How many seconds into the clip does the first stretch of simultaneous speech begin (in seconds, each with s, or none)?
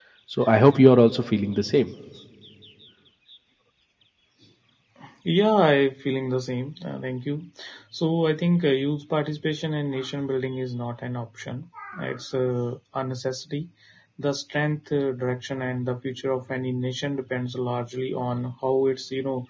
none